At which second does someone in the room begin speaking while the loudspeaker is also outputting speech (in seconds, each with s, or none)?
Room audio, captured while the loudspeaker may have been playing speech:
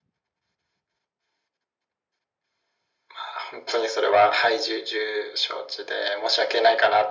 none